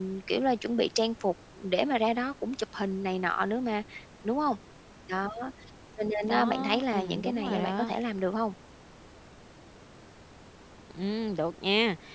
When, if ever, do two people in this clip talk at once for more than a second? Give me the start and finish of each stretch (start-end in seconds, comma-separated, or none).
6.3-7.9